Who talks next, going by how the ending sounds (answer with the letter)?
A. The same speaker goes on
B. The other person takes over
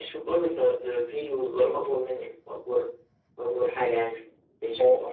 B